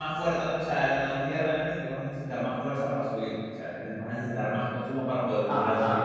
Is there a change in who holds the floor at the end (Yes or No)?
Yes